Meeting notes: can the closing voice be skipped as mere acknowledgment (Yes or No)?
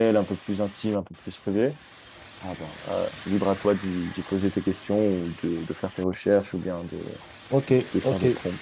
No